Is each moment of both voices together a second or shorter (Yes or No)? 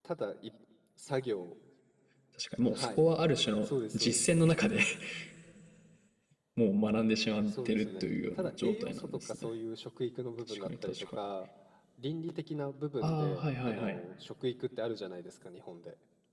No